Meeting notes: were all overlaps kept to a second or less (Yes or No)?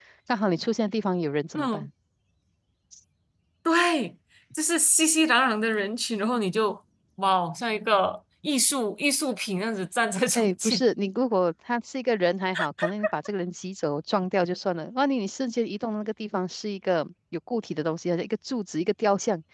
Yes